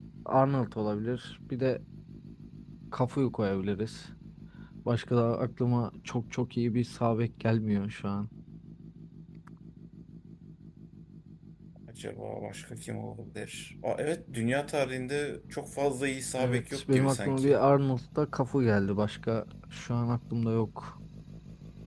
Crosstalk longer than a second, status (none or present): present